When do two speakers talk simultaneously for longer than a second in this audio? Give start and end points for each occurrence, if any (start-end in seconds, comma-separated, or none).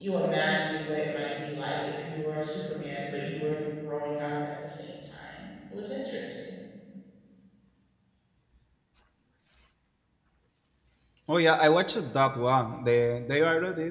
none